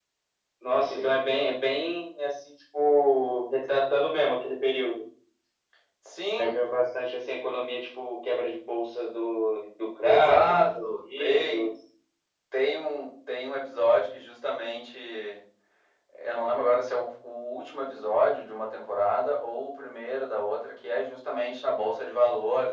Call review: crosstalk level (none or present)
present